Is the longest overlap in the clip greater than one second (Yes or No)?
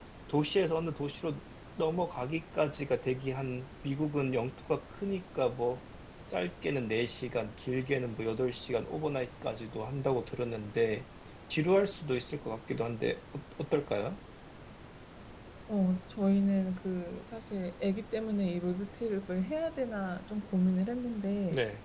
No